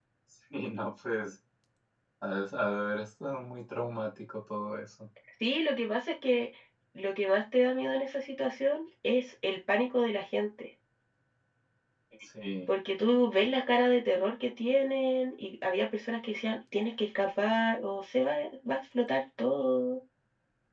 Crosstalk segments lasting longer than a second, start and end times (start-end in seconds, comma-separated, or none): none